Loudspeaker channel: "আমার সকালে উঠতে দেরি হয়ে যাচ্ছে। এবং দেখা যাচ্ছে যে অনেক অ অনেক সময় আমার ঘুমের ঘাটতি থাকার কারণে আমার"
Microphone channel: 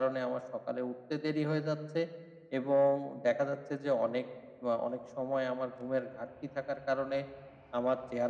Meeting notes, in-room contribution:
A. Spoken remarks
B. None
B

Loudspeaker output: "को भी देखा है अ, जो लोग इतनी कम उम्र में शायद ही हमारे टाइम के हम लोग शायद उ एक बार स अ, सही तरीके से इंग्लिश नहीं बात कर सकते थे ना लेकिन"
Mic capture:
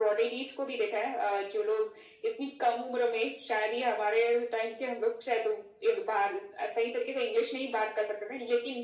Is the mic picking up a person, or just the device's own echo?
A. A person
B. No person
B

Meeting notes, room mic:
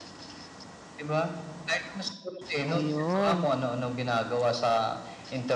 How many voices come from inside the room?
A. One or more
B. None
A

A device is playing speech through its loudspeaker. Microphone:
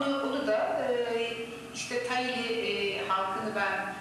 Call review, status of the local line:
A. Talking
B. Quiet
B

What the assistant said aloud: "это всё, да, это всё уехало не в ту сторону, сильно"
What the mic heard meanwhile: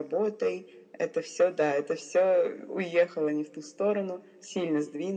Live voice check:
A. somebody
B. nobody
B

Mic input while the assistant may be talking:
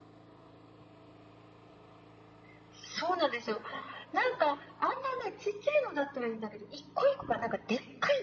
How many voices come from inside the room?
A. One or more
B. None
B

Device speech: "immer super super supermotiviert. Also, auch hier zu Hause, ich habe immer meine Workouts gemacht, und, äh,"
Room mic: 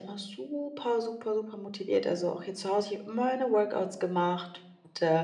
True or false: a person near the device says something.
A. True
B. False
B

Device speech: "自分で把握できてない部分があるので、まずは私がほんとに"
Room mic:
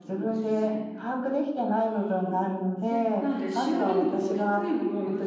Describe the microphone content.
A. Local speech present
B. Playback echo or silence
A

